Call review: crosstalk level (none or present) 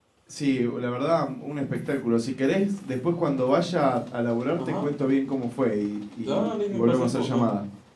present